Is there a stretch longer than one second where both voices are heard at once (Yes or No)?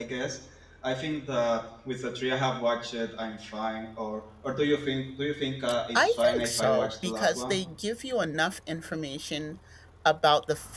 Yes